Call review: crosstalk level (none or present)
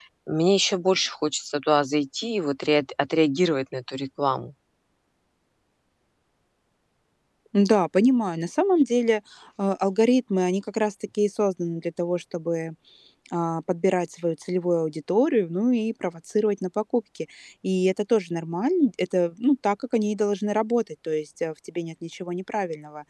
none